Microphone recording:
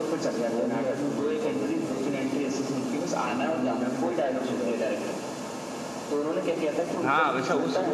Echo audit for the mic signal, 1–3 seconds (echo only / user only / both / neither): echo only